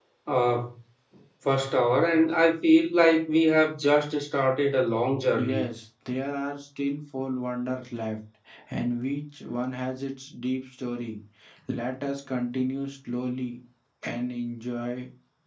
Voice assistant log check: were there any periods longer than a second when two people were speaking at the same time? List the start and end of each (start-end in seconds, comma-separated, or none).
none